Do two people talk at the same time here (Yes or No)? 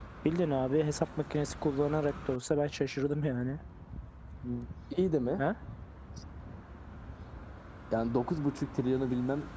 No